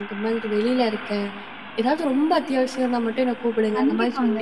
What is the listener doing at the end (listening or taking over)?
taking over